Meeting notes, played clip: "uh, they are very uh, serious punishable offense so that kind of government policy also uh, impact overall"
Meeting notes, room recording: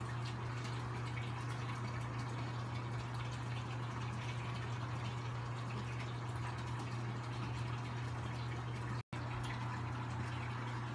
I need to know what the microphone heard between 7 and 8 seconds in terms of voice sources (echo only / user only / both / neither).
neither